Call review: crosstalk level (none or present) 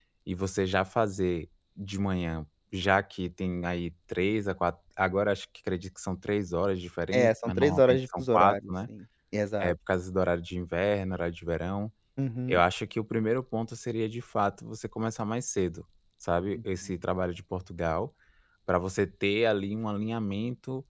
present